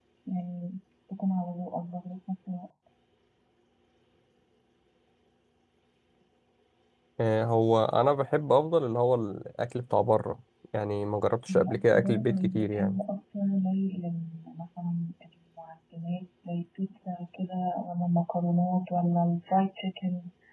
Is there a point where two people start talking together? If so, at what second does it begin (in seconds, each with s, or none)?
11.5 s